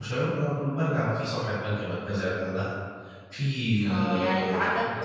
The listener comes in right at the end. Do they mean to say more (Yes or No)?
Yes